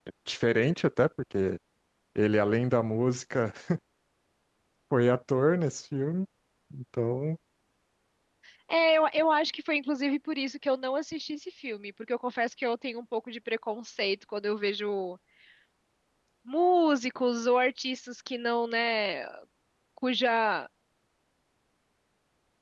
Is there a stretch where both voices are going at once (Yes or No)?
No